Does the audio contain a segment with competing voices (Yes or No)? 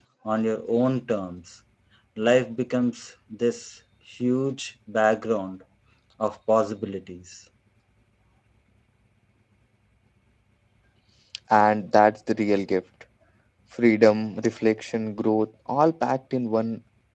No